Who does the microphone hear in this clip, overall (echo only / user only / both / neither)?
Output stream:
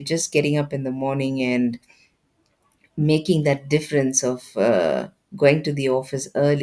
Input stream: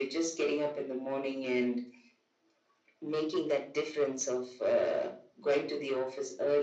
echo only